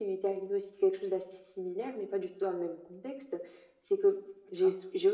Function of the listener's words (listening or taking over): listening